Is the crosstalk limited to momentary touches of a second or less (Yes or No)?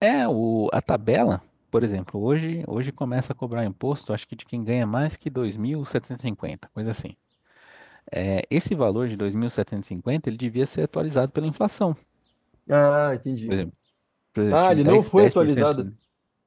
No